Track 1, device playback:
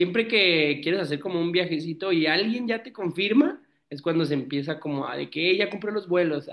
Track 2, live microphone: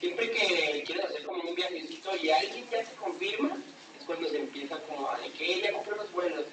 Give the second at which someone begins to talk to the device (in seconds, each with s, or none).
none